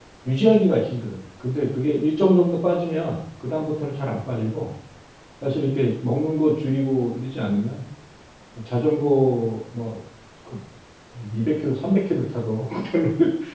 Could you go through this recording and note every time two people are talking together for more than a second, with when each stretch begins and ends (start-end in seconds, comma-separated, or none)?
none